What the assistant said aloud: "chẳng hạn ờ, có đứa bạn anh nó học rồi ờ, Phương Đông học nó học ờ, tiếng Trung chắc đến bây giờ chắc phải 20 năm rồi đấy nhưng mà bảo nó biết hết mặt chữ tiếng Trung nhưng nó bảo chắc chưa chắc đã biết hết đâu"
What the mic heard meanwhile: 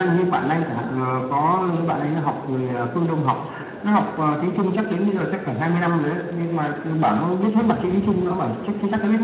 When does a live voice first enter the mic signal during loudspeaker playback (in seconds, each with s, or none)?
none